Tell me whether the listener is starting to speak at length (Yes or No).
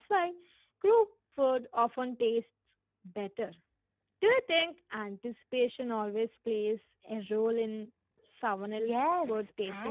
Yes